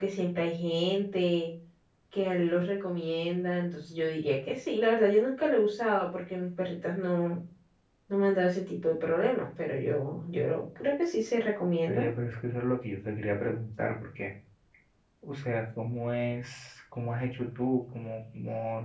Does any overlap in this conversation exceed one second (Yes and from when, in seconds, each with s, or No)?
No